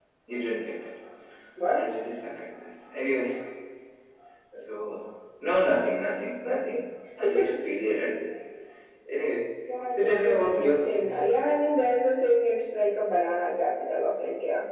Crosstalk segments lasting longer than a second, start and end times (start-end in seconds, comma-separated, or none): 10.0-11.3